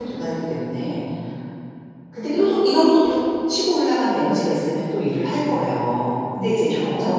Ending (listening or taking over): listening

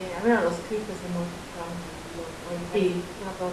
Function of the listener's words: listening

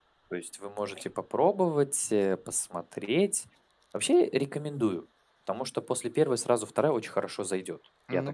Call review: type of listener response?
taking over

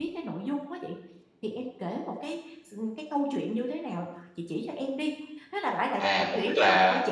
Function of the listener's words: taking over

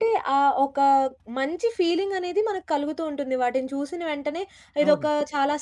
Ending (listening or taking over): listening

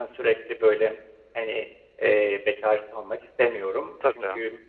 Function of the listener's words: listening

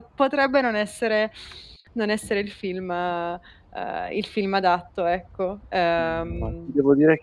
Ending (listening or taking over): taking over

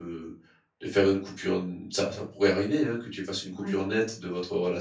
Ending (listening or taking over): listening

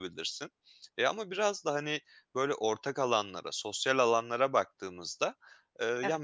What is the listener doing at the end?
listening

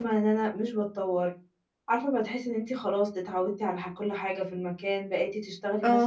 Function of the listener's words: listening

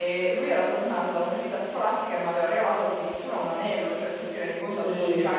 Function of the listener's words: listening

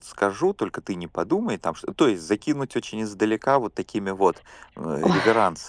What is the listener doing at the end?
listening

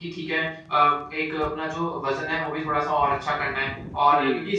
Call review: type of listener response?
listening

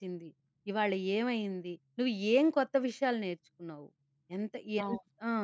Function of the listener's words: listening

